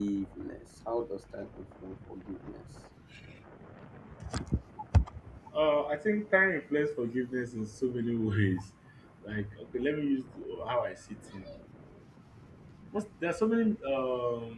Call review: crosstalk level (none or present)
none